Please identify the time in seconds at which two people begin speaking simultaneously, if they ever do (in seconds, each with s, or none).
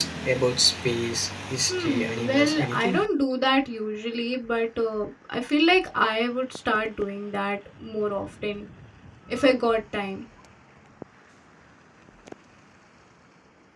1.7 s